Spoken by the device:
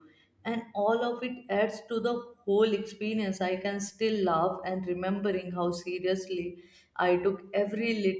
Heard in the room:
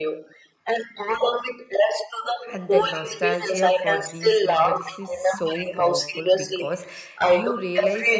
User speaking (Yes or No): Yes